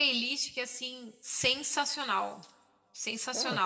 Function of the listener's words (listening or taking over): taking over